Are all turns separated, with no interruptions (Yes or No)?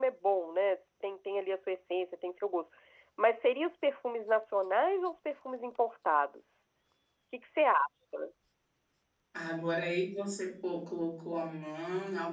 Yes